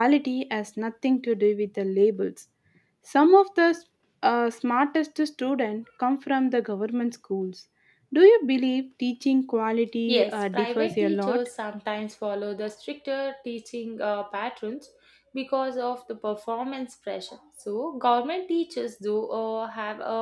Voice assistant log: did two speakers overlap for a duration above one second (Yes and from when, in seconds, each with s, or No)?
Yes, from 10.1 s